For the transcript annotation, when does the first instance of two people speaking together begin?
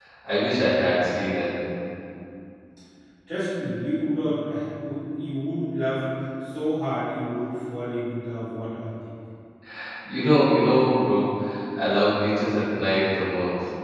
none

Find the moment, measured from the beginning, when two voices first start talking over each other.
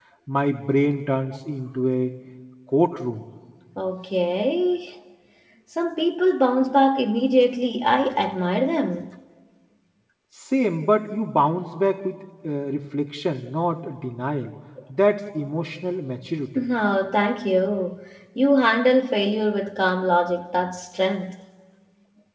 none

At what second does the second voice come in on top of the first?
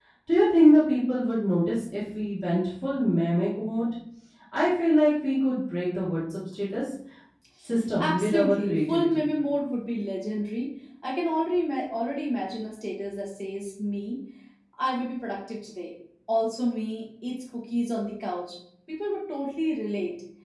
8.0 s

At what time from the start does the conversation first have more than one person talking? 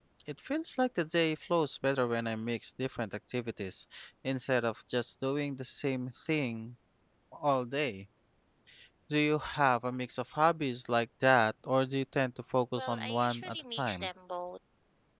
12.8 s

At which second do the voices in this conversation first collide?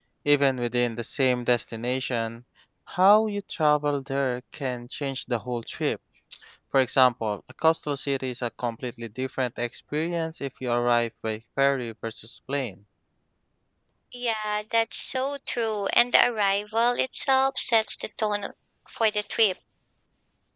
none

